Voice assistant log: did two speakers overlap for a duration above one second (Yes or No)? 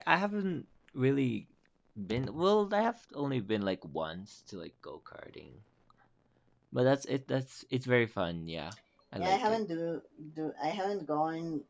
No